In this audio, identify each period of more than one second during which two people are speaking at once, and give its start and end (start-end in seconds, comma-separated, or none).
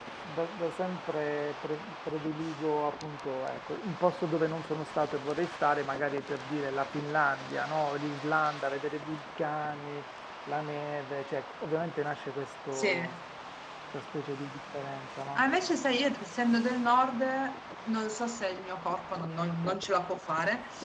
none